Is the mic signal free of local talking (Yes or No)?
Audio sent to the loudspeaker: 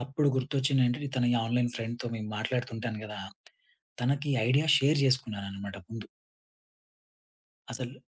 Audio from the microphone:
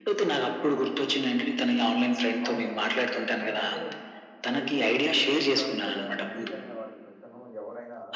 No